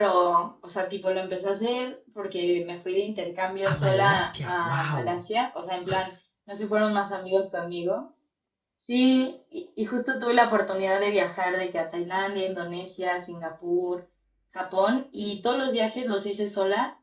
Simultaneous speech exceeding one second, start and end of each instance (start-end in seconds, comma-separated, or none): 3.7-5.2